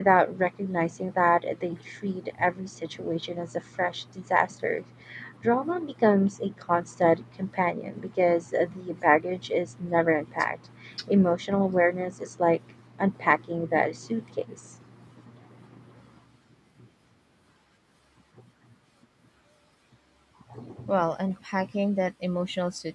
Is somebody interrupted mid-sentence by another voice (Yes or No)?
No